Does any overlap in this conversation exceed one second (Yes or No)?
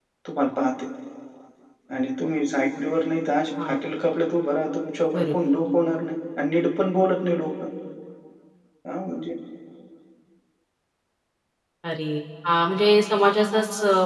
No